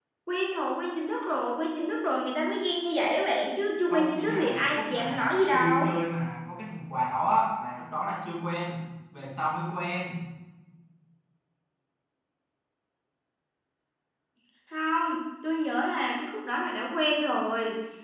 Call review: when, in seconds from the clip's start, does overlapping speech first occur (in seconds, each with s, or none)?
3.9 s